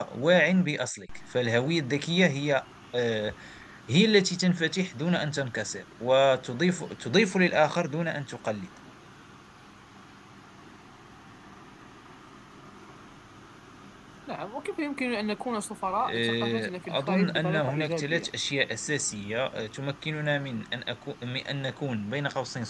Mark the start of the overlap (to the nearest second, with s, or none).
16 s